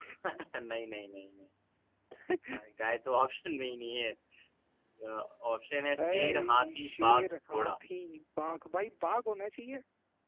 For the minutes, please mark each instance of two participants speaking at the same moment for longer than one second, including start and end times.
6.0-7.7

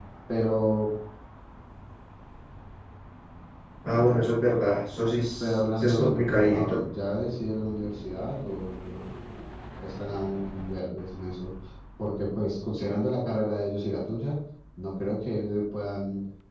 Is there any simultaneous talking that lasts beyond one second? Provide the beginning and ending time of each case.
5.4-6.8

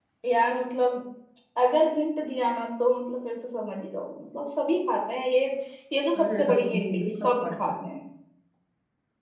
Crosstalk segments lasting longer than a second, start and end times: 6.2-7.8

